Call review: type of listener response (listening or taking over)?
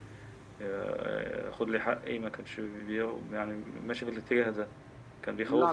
taking over